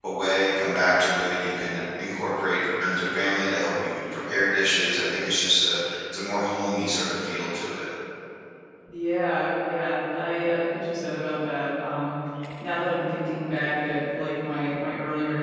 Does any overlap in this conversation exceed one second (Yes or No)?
No